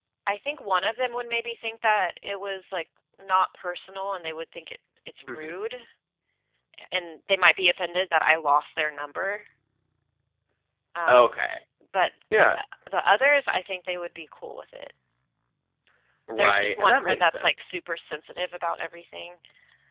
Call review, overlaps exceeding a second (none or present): present